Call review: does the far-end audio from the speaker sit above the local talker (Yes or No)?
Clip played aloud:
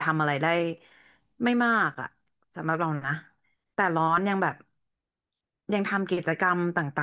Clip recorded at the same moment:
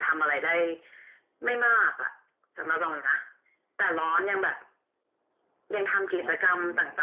Yes